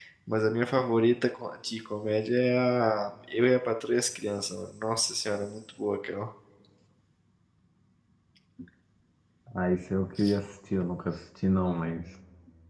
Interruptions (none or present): none